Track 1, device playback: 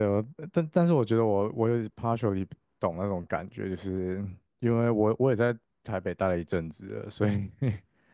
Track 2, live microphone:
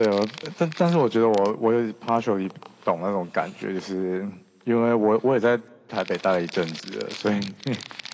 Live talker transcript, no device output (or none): none